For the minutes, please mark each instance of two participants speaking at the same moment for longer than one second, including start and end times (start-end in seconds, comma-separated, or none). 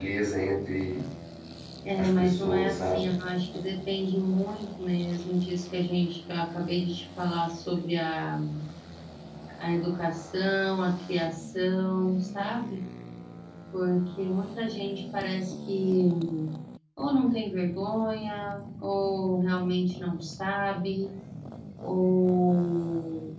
2.0-3.2